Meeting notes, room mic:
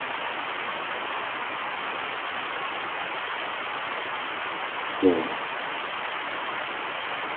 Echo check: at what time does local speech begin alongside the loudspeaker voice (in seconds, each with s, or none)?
5.0 s